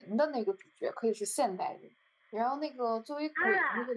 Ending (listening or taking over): listening